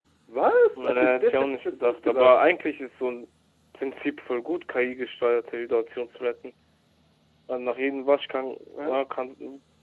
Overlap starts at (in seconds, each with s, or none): 0.8 s